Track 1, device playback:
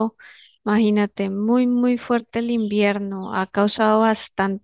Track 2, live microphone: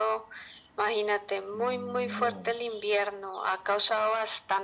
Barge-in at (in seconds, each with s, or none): 1.6 s